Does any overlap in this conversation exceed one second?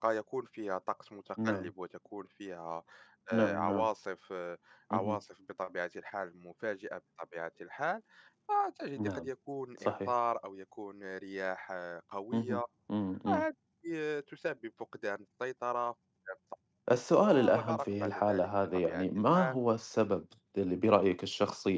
Yes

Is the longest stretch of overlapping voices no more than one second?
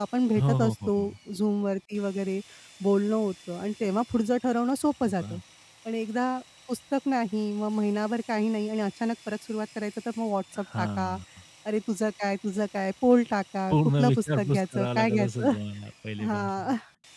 No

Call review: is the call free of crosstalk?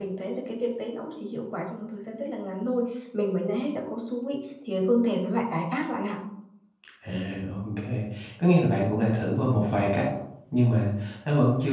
Yes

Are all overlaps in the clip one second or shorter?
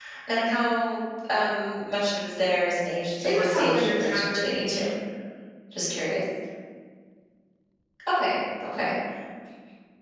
No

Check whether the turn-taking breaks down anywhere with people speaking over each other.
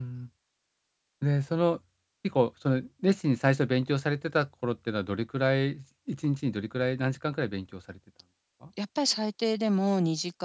No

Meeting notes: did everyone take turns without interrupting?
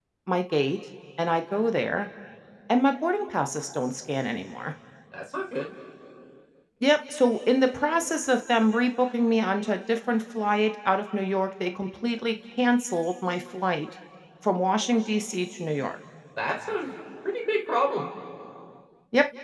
Yes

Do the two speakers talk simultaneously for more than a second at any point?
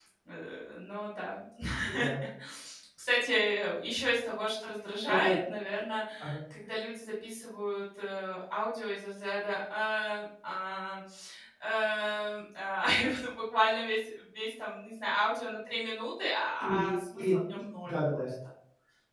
Yes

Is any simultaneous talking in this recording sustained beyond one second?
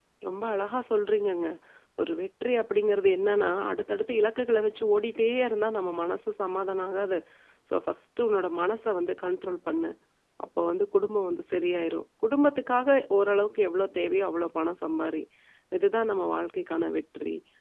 No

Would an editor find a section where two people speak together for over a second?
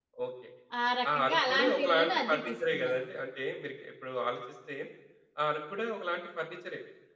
Yes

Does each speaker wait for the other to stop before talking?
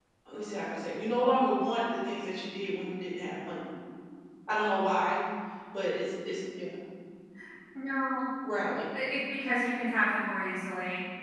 Yes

